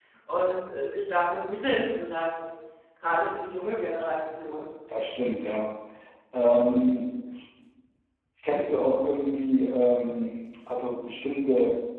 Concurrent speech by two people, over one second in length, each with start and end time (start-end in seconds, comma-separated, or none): none